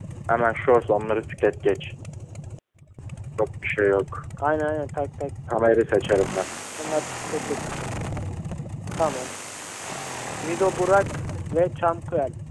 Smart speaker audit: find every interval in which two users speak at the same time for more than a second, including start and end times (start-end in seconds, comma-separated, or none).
none